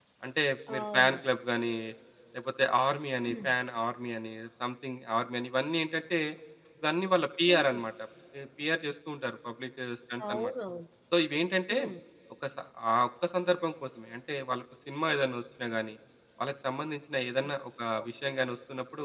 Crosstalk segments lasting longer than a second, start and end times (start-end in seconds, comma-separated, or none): none